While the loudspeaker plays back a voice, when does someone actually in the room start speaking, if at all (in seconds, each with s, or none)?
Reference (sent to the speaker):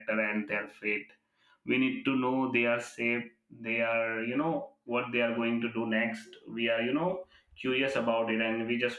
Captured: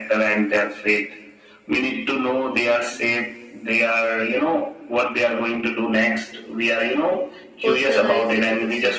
7.6 s